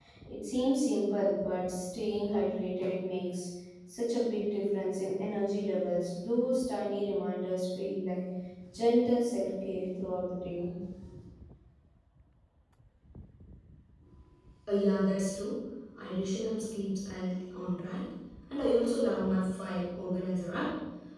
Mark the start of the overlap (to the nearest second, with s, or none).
none